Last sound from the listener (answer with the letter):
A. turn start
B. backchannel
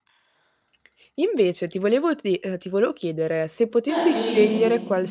B